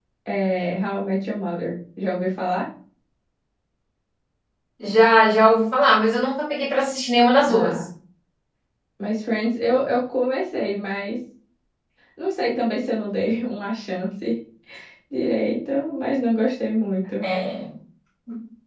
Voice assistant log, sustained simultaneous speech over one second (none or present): none